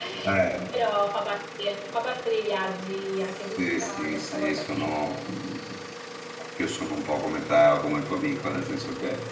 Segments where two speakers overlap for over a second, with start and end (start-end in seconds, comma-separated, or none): 3.6-4.9